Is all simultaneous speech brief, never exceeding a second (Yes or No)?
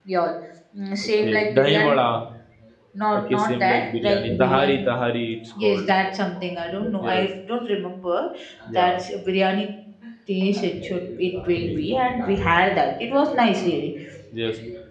No